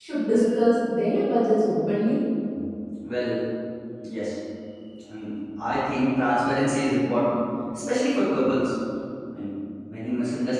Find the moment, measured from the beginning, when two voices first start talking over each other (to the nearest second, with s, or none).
none